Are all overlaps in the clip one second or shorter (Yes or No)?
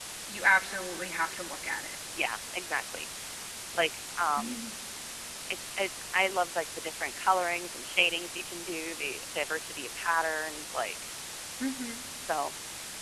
Yes